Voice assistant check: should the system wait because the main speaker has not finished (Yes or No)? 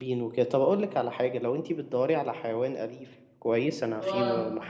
Yes